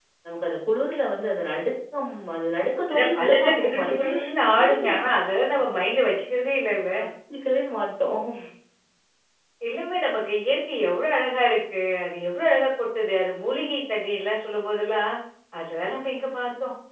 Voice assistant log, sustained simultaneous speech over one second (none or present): present